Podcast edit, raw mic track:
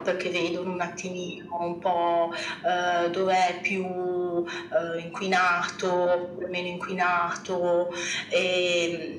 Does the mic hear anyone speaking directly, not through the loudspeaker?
No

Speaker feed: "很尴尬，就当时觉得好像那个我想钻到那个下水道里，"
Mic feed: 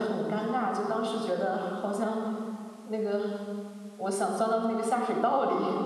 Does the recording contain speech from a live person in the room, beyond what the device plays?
No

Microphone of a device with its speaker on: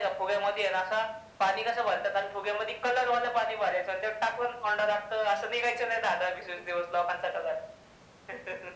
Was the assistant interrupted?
No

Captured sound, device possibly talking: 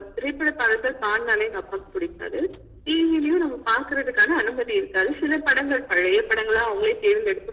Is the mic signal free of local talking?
Yes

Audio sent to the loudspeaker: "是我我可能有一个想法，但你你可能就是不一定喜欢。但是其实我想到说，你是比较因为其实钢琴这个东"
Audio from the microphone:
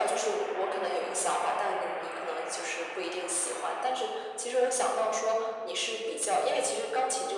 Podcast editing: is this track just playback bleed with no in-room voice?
Yes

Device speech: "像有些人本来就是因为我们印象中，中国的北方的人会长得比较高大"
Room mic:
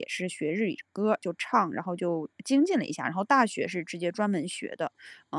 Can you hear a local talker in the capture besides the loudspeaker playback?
Yes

